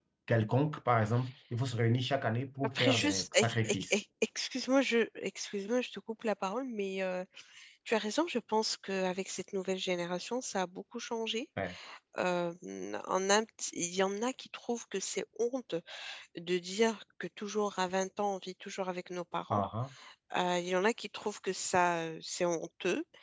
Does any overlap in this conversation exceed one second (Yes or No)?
Yes